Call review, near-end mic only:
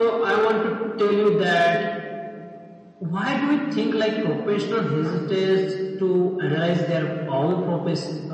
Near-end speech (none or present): none